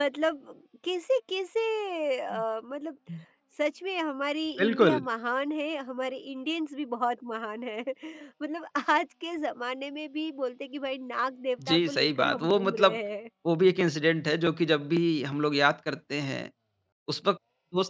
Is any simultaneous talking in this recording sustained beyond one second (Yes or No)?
Yes